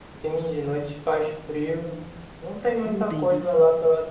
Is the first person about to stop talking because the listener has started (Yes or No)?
No